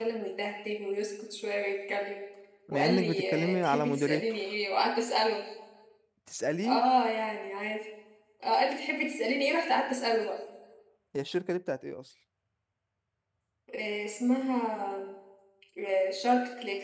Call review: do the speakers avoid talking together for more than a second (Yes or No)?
No